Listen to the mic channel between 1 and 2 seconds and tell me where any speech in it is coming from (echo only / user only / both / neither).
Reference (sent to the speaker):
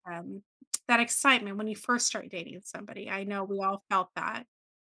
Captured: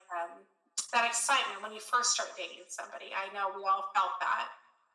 echo only